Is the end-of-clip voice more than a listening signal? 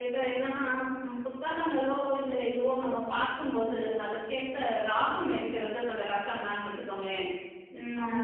No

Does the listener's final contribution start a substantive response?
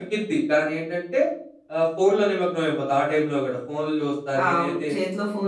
Yes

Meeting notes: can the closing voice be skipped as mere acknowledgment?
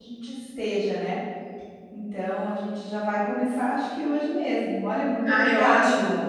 No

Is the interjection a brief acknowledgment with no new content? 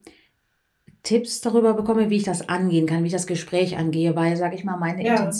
Yes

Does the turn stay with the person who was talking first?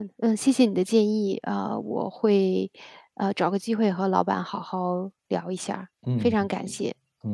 No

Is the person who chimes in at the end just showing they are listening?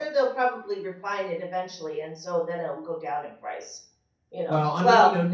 No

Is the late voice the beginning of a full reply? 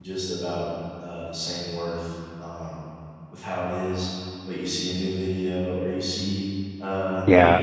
No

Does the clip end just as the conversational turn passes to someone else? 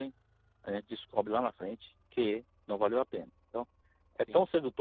No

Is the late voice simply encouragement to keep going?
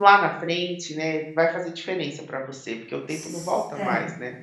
No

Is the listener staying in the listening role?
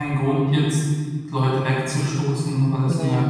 Yes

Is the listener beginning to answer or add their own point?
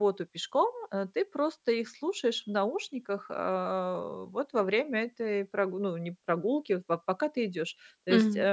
No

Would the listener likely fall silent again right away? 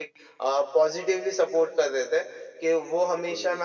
Yes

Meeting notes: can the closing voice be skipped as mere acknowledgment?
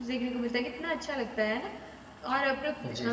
Yes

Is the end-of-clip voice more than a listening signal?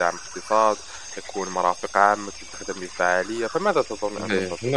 Yes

